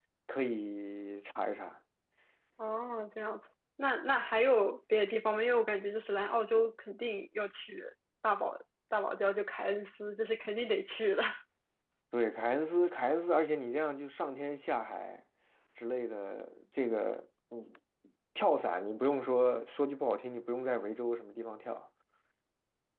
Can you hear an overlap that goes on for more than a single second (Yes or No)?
No